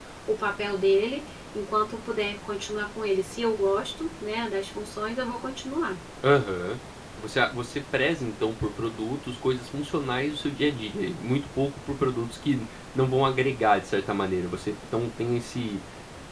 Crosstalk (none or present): none